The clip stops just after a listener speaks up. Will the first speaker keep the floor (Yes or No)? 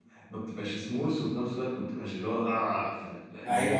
No